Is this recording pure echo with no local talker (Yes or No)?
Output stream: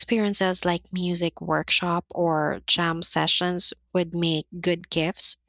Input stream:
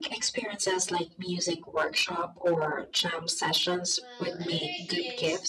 No